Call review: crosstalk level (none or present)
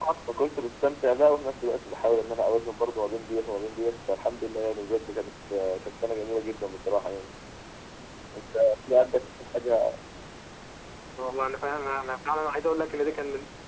none